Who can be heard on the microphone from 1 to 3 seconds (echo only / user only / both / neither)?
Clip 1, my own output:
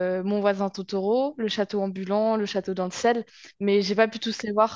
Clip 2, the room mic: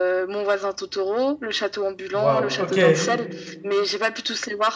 both